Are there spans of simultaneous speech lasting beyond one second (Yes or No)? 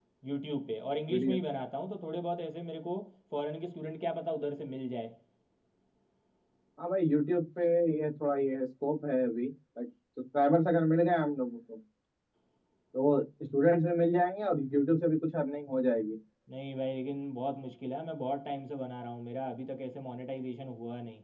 No